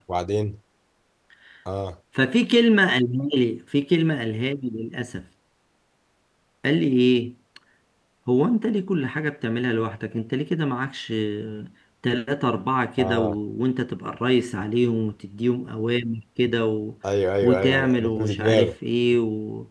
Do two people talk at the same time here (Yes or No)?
Yes